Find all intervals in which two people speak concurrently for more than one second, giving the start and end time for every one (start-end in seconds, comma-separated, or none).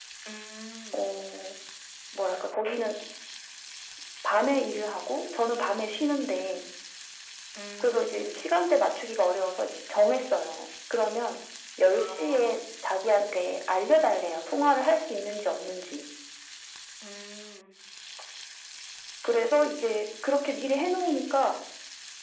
none